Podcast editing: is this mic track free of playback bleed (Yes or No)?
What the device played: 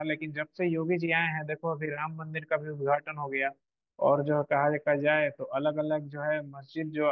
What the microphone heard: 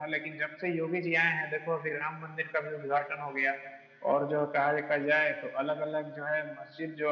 No